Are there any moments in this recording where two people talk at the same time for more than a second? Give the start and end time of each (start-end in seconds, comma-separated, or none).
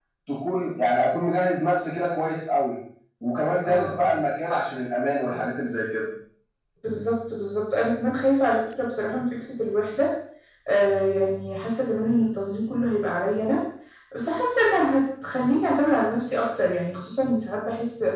none